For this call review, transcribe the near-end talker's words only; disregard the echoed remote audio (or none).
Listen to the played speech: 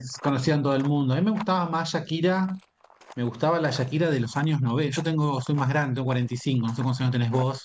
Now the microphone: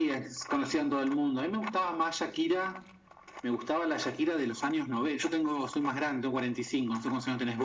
none